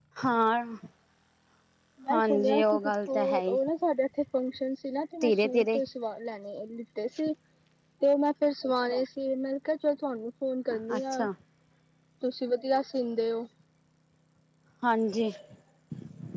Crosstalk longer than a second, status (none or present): present